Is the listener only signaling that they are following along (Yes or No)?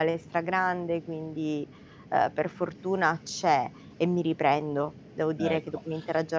Yes